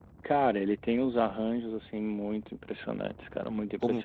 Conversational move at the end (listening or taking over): taking over